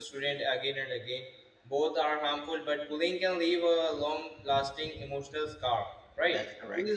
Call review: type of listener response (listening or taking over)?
listening